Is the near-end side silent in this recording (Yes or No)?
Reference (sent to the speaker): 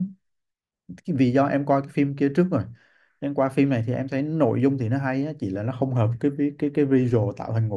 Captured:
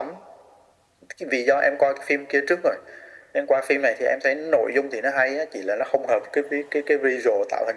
Yes